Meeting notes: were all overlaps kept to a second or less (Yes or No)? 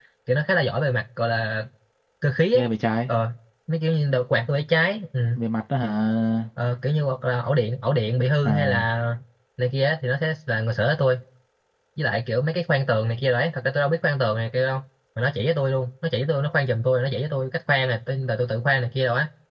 Yes